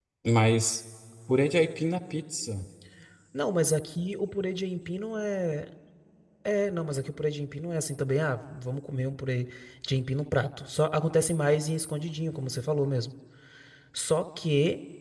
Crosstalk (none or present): none